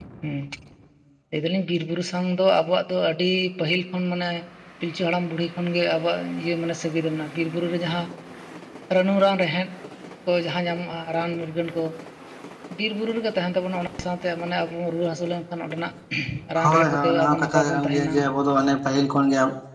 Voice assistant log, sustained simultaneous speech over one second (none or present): present